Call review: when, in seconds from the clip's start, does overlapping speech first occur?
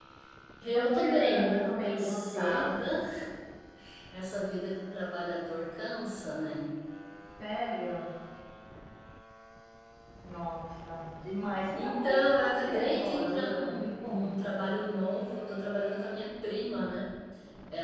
0.8 s

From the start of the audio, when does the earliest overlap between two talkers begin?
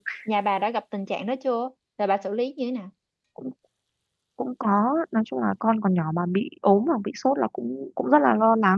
none

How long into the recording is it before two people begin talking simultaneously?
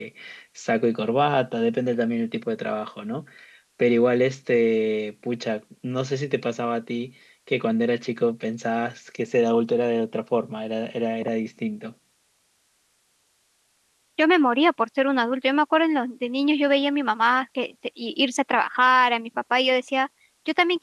none

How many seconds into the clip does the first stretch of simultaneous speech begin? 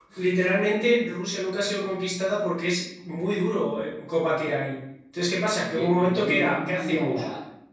5.6 s

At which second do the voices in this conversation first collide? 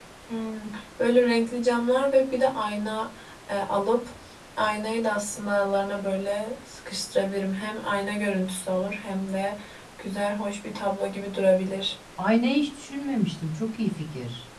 none

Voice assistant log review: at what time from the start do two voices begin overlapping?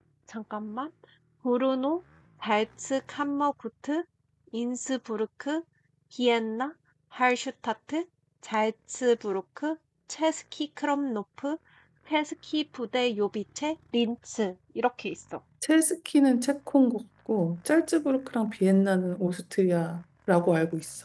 none

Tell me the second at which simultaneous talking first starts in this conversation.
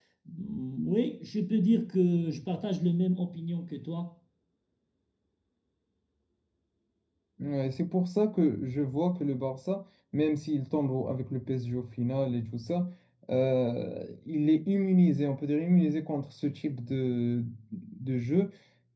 none

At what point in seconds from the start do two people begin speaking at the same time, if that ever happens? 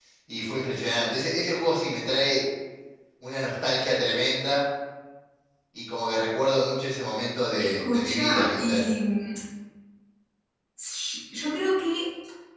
7.6 s

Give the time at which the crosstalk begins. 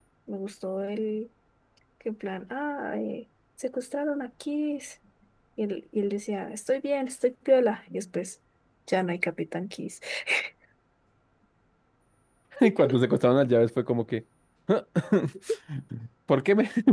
none

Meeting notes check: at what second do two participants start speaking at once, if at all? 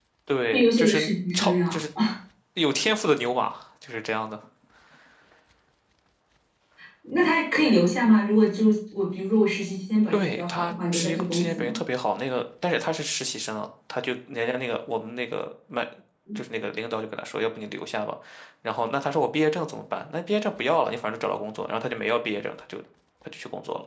0.5 s

